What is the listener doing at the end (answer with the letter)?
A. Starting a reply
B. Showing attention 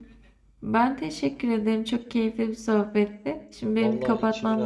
A